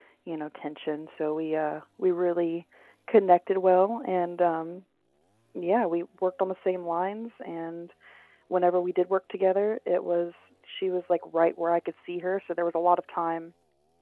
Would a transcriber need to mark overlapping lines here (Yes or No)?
No